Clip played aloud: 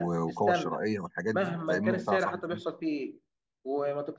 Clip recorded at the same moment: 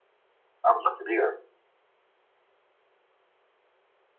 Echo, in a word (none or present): none